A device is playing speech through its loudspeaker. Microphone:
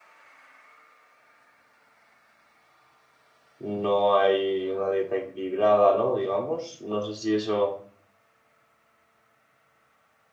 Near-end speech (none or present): present